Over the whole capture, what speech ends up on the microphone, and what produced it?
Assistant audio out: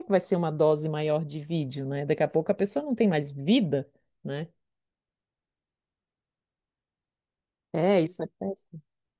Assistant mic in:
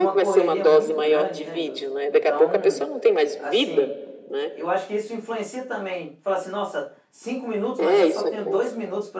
both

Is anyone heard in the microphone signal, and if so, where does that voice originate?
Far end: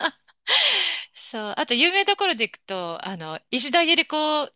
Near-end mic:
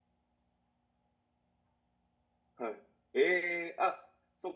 user only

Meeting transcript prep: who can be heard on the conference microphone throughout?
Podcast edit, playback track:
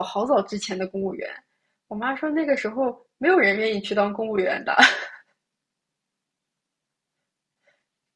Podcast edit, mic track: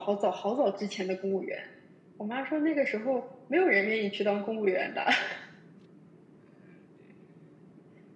echo only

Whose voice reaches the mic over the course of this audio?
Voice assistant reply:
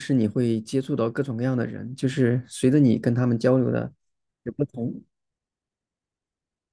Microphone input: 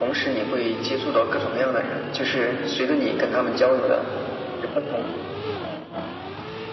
echo only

